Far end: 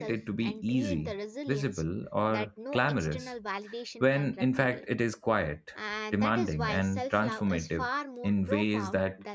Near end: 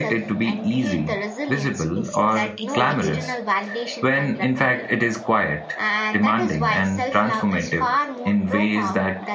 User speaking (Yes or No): Yes